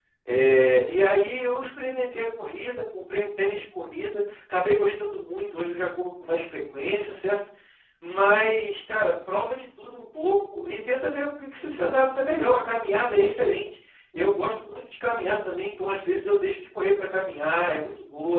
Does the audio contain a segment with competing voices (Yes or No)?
No